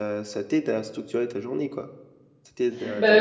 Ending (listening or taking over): taking over